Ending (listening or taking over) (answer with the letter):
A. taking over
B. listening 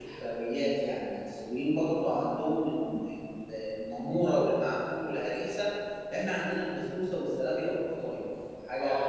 A